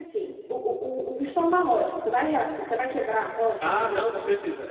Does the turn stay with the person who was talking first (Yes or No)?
No